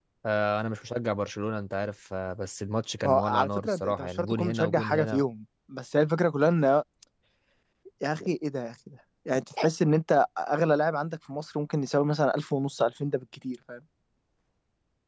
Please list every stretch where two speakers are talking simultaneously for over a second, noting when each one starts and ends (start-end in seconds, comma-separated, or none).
3.0-5.2